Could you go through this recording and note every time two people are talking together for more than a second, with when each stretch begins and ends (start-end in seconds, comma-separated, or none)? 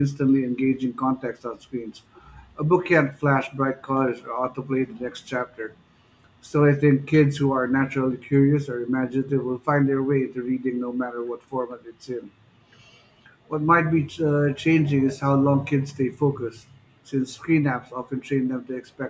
none